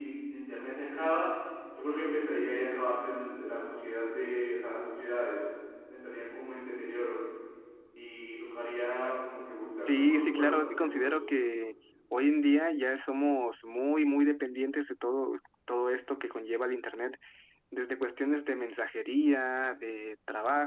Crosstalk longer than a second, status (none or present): present